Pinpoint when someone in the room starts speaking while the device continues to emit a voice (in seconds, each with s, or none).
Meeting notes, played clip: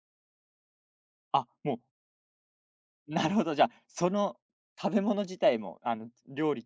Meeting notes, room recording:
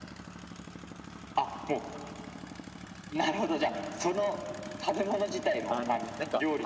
5.7 s